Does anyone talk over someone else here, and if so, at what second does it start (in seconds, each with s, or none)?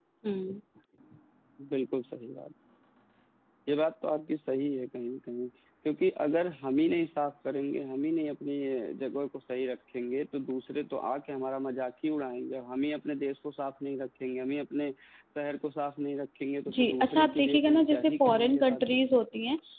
16.7 s